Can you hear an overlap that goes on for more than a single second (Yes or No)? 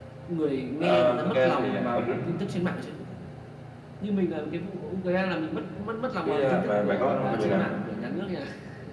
Yes